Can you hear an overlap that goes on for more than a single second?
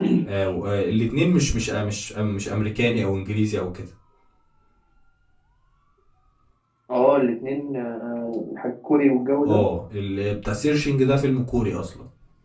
No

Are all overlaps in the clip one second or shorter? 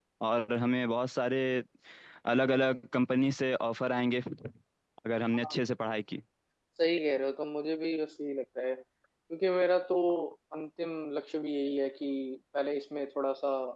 Yes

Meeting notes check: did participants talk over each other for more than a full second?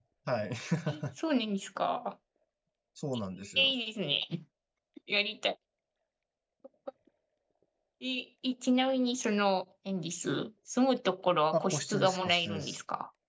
Yes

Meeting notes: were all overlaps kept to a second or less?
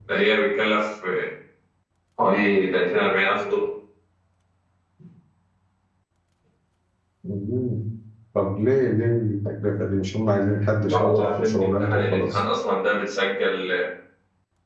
No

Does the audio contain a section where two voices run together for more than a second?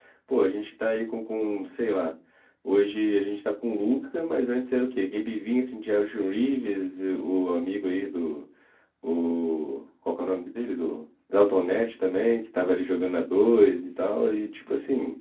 No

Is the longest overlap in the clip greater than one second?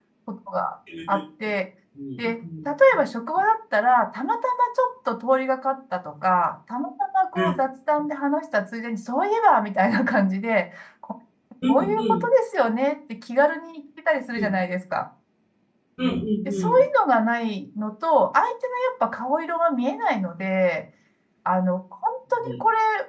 No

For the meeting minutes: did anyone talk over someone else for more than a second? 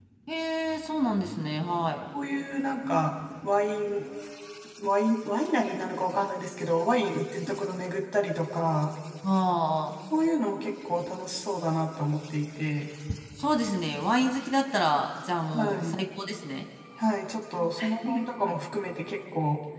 No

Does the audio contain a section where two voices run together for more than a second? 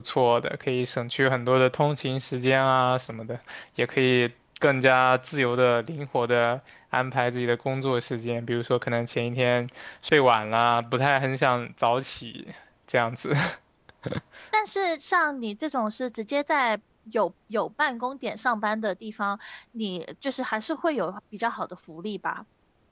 No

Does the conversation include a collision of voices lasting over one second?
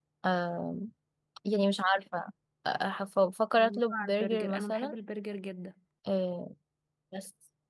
Yes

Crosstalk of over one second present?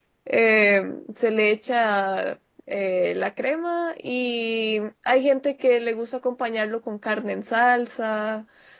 No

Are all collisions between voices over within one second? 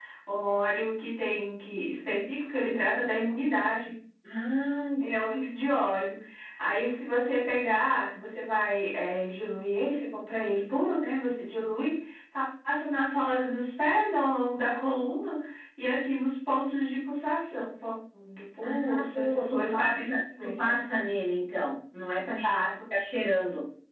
No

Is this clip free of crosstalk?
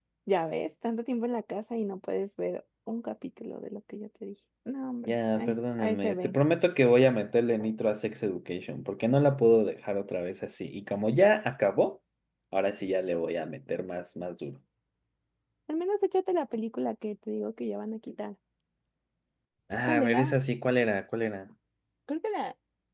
No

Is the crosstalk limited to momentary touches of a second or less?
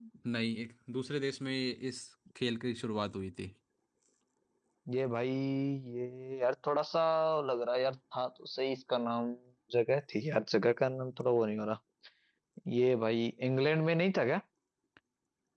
Yes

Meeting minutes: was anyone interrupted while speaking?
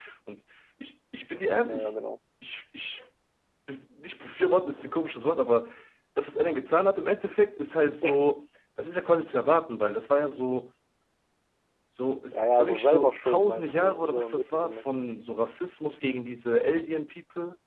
Yes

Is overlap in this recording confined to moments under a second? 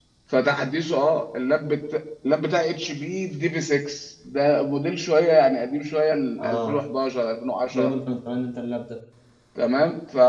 Yes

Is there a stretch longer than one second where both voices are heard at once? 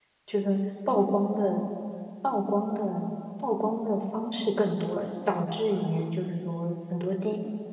No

